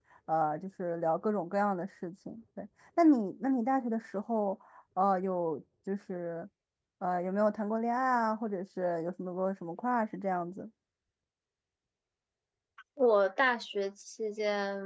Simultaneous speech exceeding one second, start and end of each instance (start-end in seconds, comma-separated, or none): none